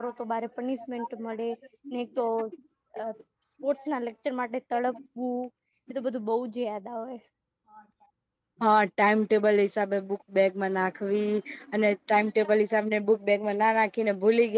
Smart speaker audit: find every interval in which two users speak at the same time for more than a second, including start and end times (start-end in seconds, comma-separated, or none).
none